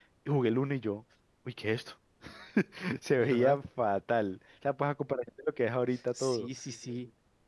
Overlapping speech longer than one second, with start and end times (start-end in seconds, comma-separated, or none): none